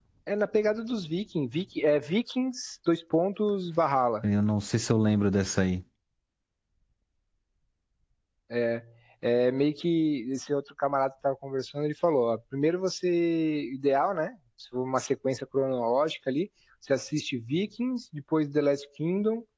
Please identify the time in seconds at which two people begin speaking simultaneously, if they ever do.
none

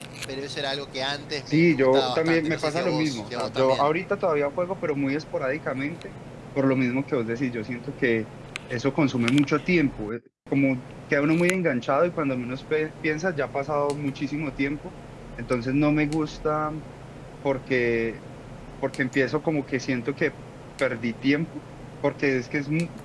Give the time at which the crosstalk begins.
1.5 s

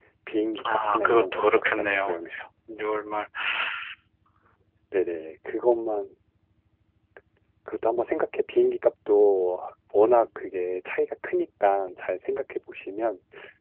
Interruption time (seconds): 0.7 s

